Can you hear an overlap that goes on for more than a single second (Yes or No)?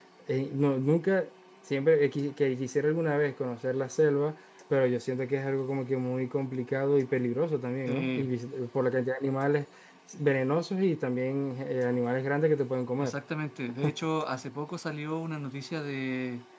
No